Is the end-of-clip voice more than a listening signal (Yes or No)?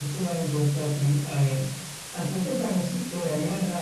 No